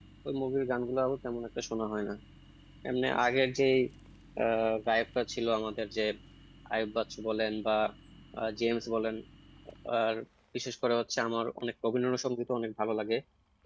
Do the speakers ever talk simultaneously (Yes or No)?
No